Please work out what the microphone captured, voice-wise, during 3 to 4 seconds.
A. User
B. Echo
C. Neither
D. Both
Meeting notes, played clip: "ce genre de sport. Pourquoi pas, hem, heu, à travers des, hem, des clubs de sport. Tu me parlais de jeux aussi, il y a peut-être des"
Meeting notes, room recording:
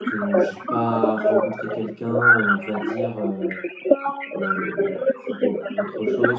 D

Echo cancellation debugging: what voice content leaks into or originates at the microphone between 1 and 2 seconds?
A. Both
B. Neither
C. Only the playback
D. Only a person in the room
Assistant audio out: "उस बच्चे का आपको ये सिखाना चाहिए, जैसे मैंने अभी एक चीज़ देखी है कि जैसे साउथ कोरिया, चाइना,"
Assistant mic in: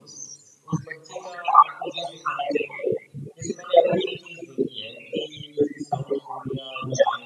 C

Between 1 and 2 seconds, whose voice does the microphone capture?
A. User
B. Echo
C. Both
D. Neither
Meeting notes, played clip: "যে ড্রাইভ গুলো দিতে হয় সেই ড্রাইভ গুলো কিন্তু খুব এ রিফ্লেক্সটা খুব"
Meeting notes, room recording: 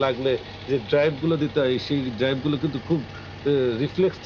B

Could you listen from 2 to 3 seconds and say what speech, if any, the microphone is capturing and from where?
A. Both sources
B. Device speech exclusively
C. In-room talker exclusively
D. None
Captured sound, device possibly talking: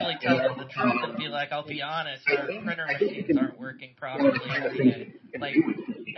A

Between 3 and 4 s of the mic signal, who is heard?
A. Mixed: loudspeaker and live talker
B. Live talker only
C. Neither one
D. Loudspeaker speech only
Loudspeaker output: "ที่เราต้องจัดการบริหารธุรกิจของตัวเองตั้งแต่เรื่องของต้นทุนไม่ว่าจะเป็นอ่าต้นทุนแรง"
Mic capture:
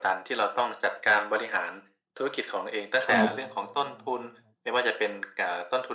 A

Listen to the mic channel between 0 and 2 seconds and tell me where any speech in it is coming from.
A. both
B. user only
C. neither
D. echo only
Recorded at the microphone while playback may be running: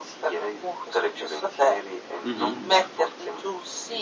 D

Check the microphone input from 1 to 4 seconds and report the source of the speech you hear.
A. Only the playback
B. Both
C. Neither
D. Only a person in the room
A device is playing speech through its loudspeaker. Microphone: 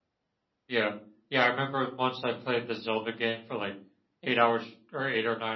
A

